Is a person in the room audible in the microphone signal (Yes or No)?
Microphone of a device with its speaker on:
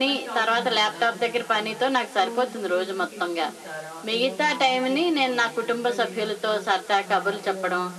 Yes